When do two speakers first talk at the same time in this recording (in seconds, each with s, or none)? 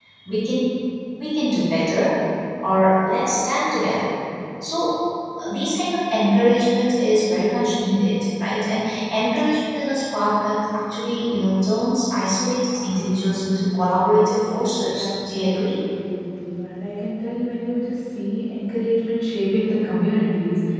14.4 s